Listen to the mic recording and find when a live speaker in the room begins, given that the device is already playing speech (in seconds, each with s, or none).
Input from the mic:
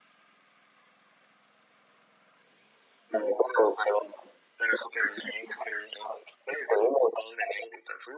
none